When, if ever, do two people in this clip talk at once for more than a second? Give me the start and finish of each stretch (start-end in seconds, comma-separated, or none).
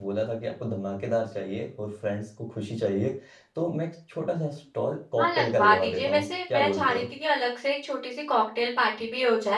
5.2-7.0